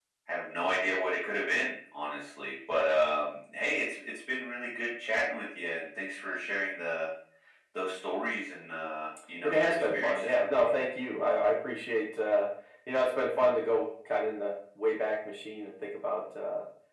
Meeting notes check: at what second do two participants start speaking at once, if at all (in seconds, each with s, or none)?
9.4 s